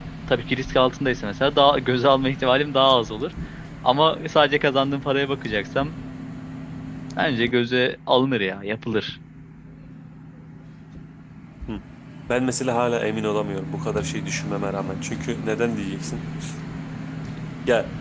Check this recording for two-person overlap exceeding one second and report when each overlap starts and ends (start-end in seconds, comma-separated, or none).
none